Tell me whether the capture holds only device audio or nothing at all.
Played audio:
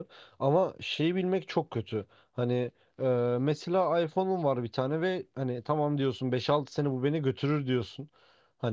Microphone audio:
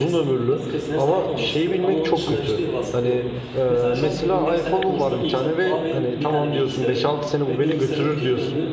No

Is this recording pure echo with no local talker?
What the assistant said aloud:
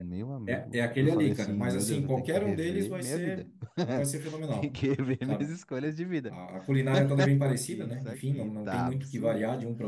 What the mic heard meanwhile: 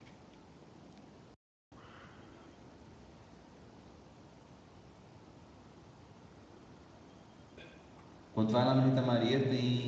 No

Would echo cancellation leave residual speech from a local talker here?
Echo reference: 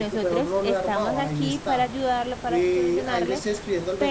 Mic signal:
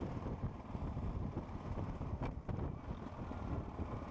No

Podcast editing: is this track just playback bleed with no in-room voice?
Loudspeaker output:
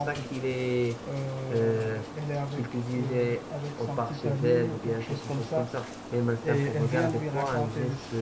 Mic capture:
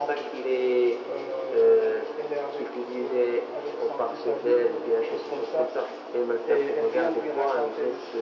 Yes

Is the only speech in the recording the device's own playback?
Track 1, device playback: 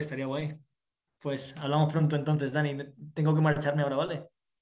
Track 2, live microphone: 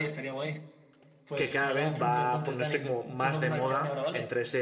No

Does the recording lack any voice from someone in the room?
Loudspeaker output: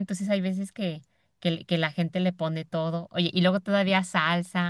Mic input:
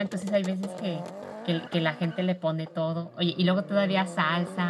Yes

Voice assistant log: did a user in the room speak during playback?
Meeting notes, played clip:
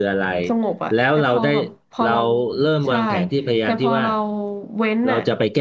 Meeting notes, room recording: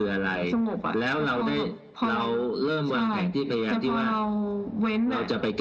No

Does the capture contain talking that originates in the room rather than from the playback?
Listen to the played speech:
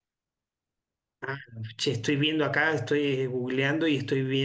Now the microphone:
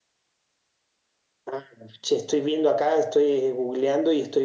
No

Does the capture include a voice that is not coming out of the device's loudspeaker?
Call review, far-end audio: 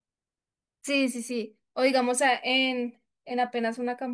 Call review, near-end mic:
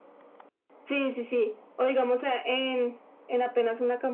No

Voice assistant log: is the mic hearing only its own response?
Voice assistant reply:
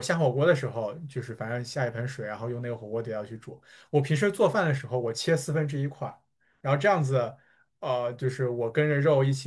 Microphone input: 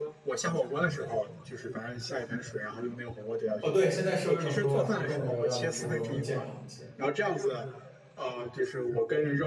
No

